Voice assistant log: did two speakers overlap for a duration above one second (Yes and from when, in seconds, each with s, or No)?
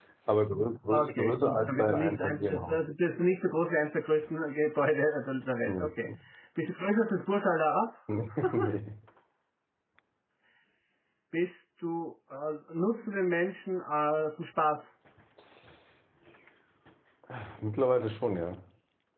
Yes, from 0.9 s